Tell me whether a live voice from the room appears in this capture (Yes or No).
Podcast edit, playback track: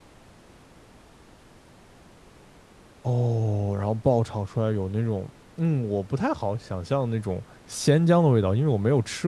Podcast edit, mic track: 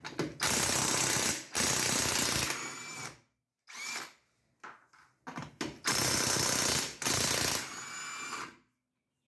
No